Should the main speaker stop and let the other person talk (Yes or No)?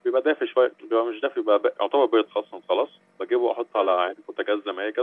No